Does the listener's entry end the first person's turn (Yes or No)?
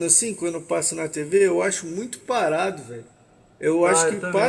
Yes